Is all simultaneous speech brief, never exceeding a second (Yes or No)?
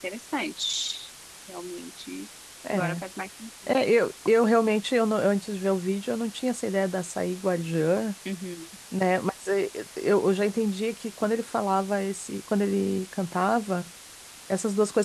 Yes